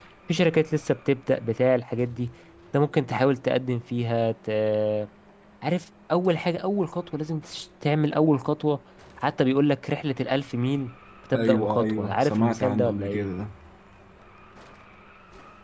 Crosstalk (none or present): present